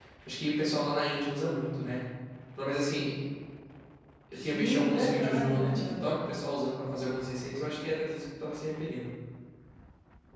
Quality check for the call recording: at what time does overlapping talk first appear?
4.3 s

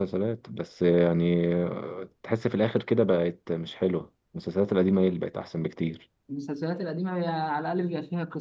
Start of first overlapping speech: none

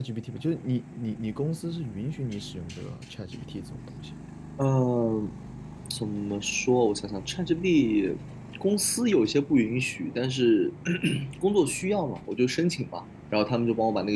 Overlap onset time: none

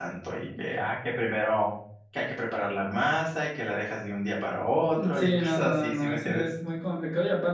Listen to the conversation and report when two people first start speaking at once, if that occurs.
5.0 s

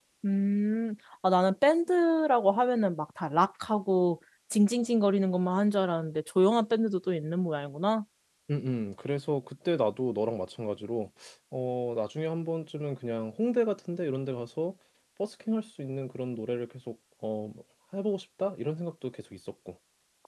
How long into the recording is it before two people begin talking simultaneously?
none

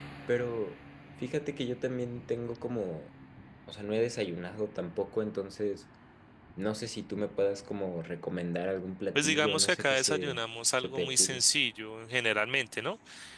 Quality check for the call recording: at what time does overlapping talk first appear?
9.2 s

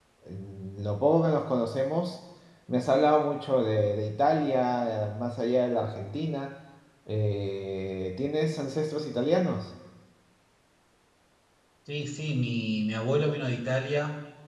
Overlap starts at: none

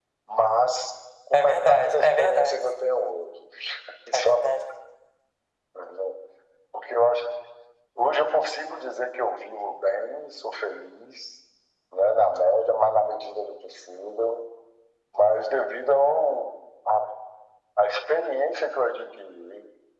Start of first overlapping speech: 1.3 s

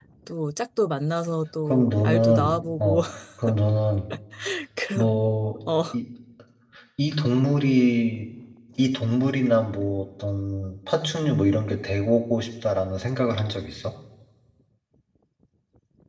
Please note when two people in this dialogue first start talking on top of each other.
1.7 s

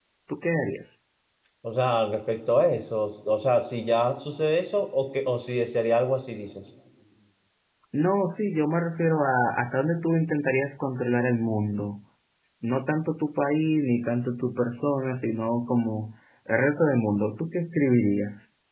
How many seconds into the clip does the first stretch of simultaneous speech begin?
none

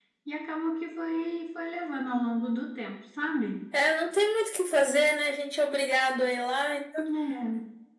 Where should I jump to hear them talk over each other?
none

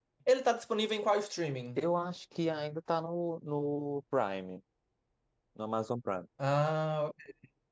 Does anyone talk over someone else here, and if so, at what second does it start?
none

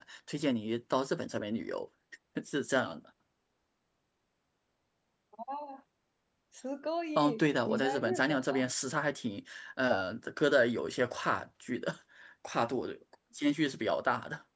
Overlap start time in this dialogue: 7.2 s

